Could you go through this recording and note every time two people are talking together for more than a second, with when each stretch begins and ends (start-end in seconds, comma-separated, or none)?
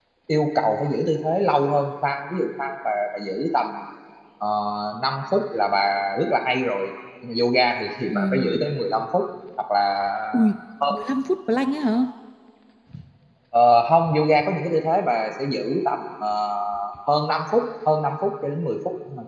none